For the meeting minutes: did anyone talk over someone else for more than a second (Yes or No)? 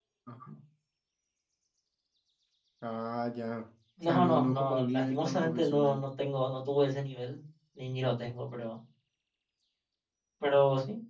Yes